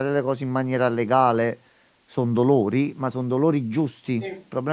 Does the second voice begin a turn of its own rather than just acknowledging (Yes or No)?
No